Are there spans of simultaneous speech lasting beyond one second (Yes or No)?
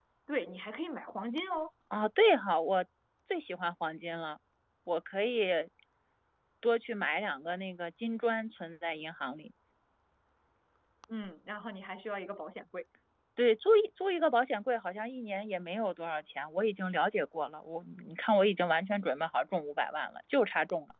No